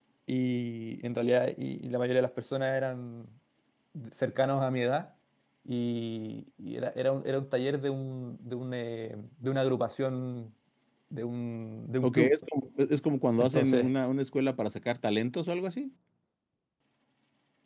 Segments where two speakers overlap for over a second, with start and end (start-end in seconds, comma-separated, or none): none